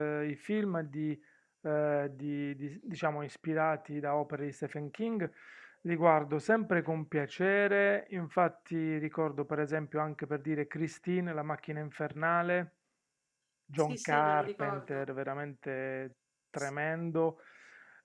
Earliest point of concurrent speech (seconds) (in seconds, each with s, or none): 13.8 s